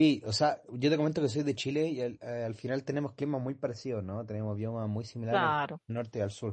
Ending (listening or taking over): listening